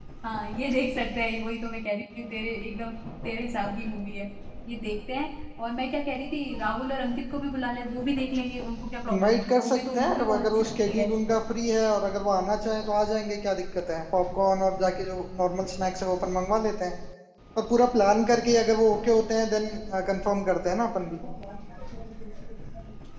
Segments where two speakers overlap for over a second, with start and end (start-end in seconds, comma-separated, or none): 9.1-11.1